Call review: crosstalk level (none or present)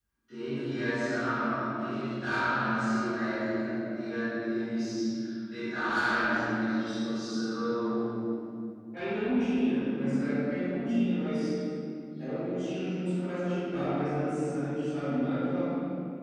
none